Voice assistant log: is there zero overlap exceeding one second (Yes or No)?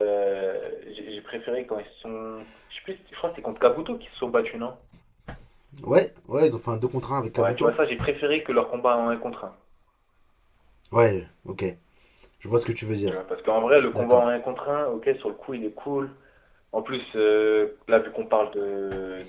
Yes